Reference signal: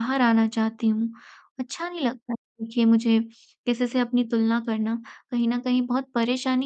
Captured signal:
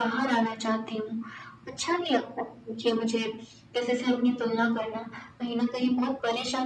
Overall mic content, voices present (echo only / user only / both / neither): echo only